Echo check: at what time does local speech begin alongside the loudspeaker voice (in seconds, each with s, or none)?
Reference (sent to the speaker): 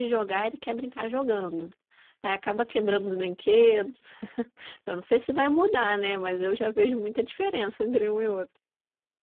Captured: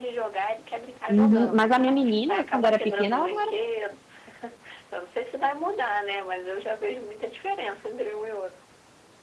1.1 s